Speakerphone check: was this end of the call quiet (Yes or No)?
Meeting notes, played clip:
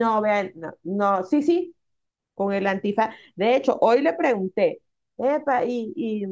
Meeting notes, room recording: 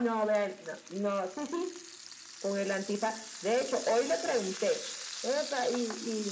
Yes